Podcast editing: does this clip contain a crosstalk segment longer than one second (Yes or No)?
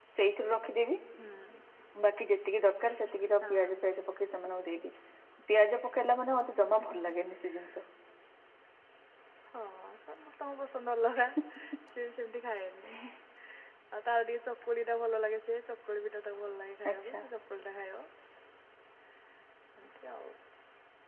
No